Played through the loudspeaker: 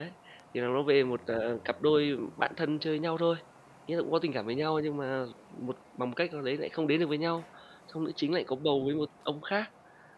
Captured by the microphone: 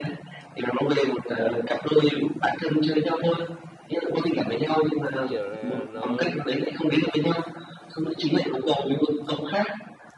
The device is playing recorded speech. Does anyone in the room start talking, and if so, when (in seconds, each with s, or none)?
5.3 s